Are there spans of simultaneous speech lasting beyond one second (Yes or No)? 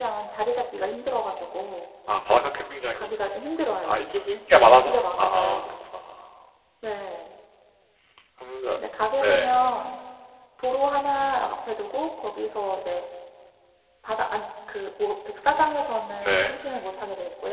Yes